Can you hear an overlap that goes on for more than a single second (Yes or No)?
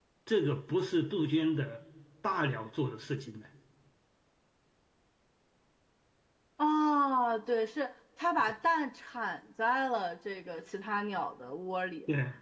No